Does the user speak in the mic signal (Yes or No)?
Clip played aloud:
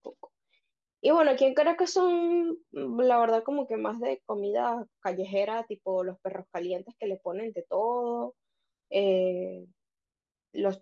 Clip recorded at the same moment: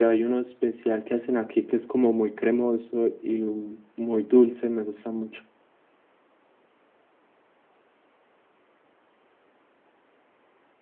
Yes